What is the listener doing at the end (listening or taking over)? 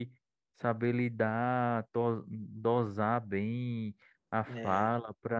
listening